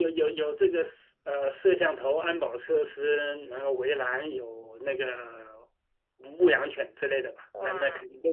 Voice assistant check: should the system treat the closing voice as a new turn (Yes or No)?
No